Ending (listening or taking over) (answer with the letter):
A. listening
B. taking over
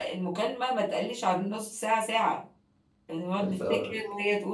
A